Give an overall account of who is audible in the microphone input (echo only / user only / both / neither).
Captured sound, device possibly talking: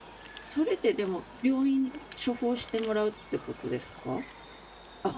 user only